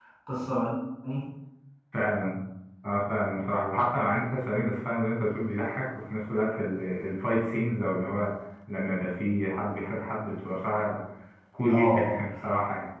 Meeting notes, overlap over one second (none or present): none